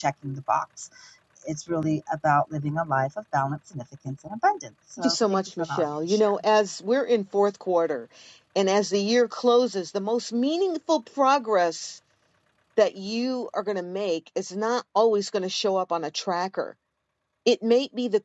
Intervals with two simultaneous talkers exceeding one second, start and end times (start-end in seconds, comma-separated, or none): 5.0-6.3